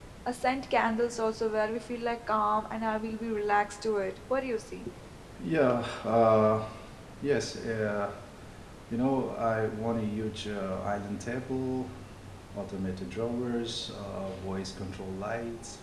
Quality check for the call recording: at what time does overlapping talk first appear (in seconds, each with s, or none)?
none